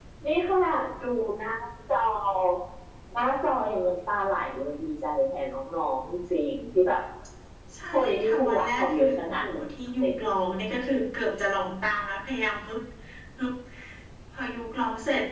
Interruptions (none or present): present